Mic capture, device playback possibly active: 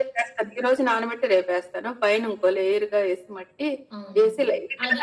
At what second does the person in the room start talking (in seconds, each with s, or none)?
4.0 s